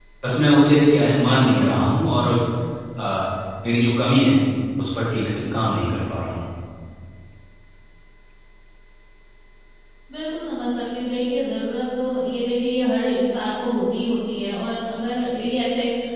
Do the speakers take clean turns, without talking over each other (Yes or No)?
Yes